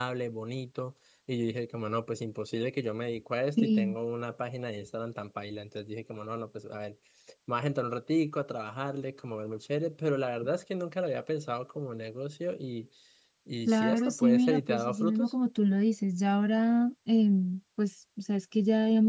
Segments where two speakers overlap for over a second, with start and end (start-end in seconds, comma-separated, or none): 13.7-15.3